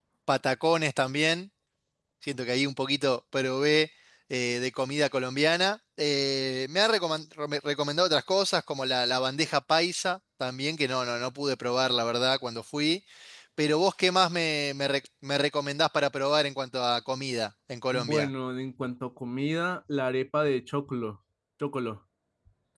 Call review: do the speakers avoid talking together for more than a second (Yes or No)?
Yes